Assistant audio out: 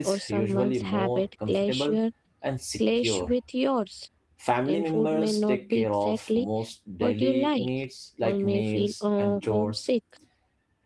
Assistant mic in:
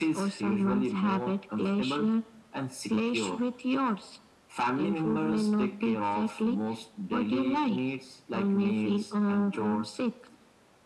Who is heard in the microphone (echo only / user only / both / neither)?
echo only